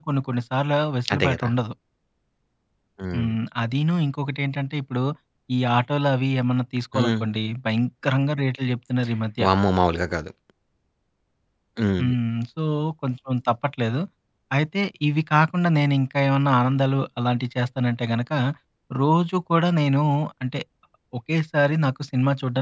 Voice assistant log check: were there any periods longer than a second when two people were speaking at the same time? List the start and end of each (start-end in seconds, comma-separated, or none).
none